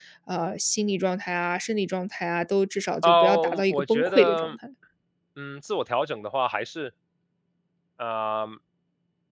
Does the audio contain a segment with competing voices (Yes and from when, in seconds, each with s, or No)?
Yes, from 3.0 s